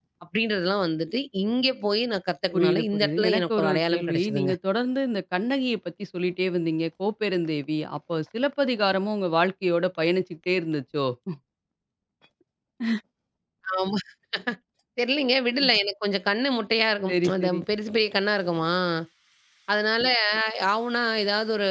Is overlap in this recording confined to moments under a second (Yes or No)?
No